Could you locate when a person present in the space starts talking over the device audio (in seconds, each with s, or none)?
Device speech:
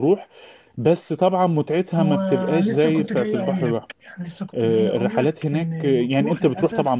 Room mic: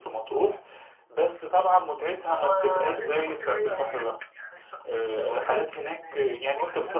none